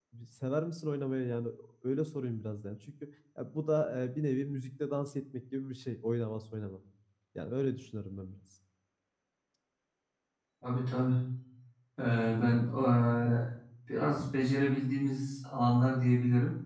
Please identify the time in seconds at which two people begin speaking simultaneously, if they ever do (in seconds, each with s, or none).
none